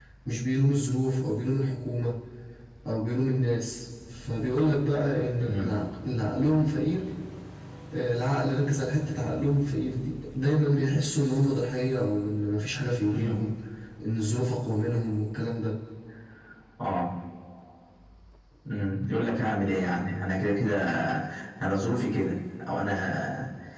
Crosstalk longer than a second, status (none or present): none